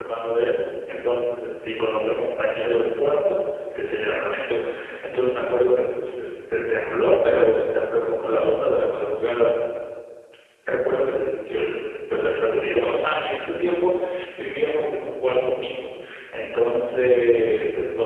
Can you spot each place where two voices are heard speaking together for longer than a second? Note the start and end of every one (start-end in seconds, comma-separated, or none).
none